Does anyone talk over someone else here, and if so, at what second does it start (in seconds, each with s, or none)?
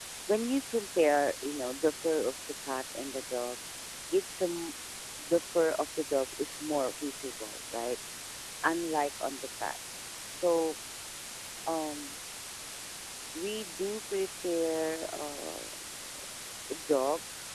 none